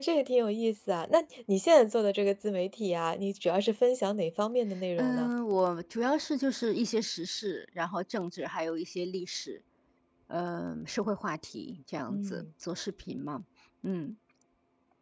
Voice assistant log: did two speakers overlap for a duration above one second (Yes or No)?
No